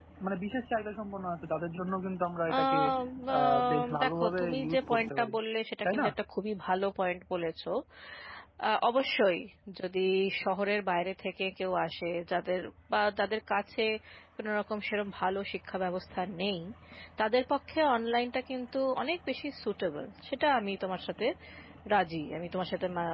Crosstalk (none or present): present